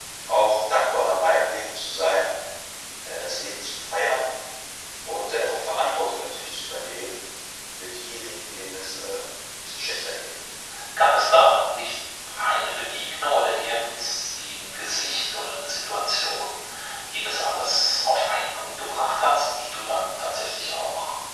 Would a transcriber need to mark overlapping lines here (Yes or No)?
No